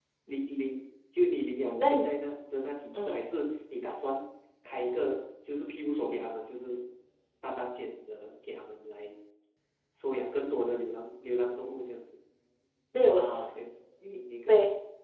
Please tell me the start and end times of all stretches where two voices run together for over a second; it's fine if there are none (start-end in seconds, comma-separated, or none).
none